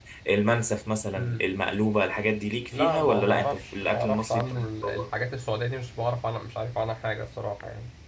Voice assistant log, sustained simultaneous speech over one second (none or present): present